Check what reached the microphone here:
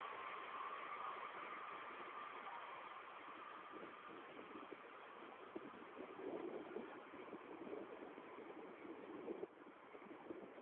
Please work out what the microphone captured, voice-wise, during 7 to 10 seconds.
neither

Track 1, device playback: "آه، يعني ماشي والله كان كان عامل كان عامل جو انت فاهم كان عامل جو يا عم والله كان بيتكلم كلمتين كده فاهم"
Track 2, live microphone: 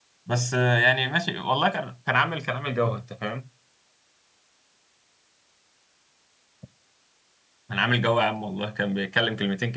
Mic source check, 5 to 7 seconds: neither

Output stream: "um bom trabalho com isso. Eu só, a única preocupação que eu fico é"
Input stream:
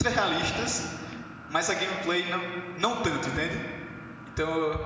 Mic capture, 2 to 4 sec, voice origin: user only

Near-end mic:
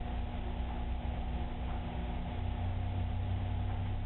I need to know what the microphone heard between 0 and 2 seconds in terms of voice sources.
neither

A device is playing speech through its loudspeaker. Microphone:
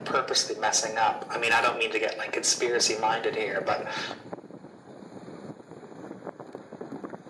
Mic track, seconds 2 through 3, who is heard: echo only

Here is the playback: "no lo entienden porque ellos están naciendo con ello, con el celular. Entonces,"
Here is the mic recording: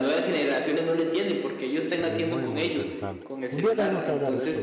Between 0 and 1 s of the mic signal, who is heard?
echo only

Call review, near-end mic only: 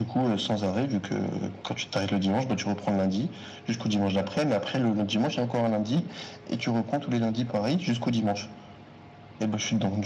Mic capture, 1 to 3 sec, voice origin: echo only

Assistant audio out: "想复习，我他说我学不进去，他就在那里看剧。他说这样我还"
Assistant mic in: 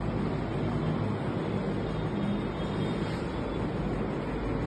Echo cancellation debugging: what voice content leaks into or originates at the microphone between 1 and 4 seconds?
neither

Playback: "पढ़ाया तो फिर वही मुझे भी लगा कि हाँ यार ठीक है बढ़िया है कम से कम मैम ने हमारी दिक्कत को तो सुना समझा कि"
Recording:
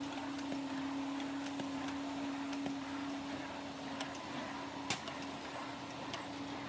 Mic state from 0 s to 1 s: neither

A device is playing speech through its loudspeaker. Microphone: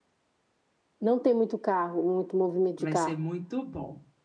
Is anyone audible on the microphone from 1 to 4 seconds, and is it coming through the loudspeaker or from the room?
both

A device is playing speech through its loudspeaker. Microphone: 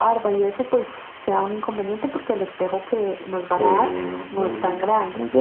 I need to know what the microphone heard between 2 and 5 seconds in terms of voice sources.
both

